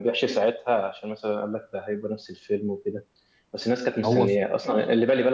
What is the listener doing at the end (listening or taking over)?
listening